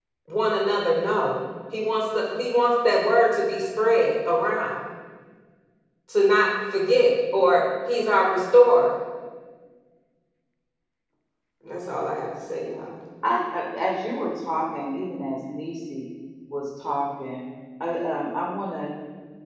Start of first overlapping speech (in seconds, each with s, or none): none